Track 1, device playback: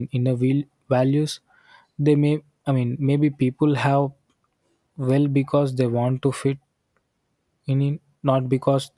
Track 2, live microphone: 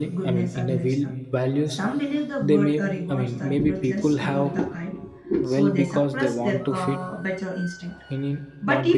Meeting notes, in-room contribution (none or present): present